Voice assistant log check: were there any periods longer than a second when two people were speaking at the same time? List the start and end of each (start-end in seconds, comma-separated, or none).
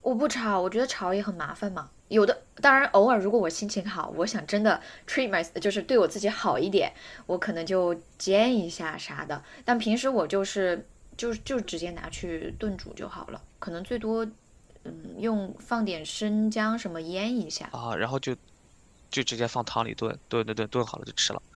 none